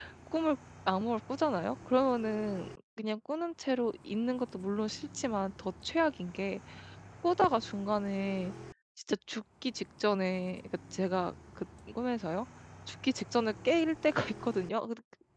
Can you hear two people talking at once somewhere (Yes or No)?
No